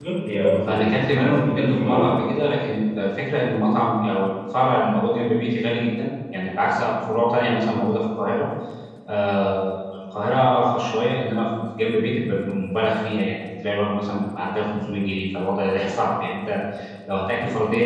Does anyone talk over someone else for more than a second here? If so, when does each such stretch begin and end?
0.7-2.1

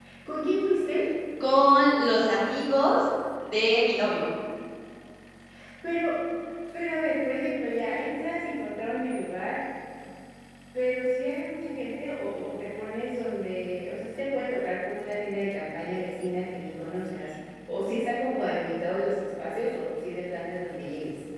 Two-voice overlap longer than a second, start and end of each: none

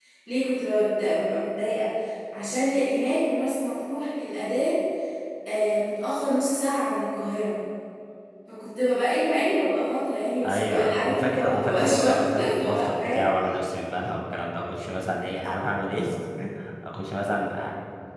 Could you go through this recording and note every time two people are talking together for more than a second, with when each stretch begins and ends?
10.4-13.3

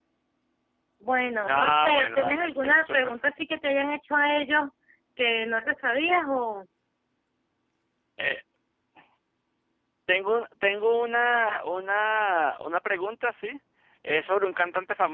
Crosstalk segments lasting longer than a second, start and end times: 1.5-3.1

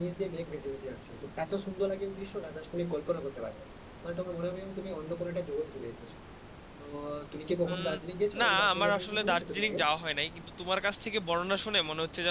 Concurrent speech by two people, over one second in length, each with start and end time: 8.4-9.8

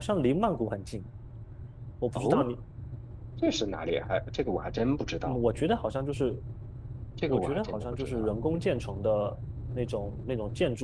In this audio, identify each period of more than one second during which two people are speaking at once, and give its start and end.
7.3-8.6

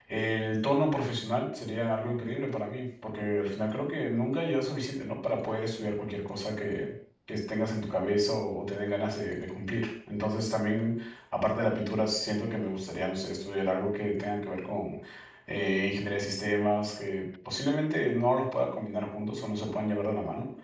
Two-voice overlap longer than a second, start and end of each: none

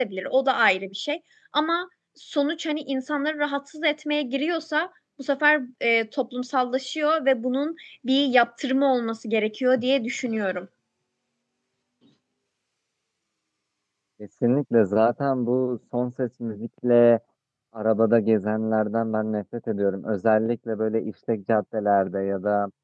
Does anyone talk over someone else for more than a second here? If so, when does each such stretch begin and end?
none

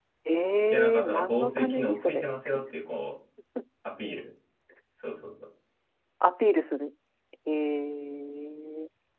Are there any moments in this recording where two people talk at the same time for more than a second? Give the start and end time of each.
0.7-2.2

